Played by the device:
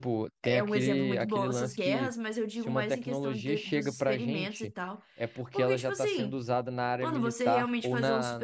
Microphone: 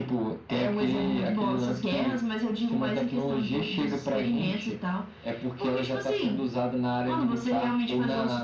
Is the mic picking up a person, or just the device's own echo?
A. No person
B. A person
A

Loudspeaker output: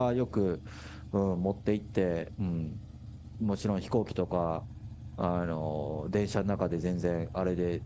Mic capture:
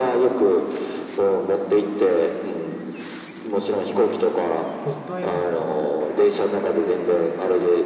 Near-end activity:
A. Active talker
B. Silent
A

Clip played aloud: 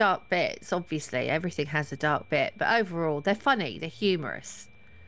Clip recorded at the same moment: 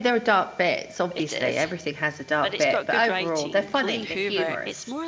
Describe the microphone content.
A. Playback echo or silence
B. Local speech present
B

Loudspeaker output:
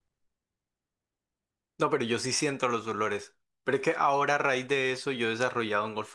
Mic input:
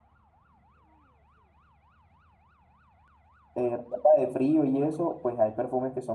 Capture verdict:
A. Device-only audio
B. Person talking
B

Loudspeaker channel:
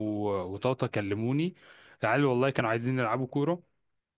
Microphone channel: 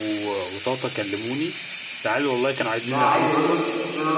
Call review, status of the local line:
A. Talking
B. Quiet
A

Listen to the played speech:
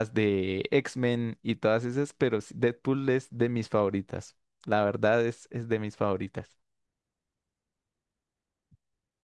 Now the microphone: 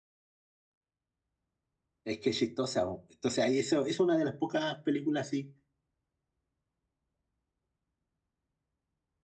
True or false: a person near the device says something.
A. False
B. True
B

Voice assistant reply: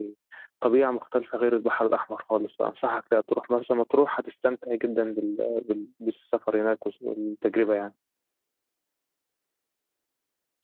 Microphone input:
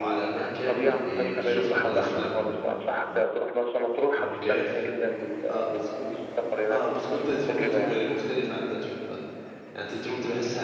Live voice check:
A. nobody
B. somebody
B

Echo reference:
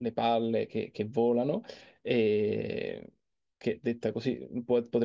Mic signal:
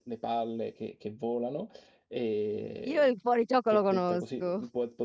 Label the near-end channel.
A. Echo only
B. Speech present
B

